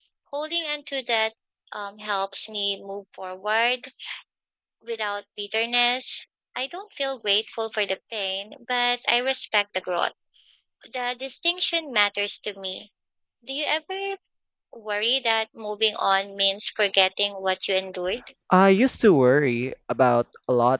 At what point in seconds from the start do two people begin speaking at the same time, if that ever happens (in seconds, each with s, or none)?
none